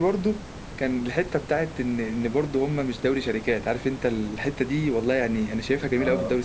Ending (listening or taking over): listening